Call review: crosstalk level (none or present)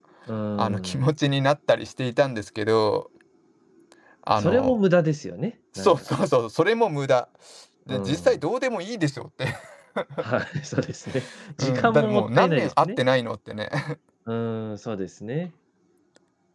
present